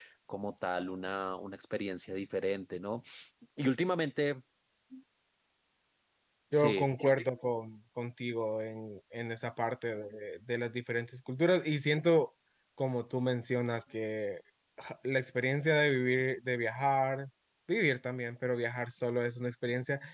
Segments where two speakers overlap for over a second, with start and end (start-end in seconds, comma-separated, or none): none